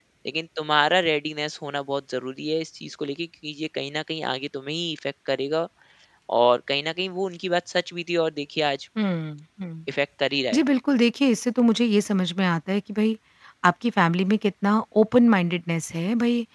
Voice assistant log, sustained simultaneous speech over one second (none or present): none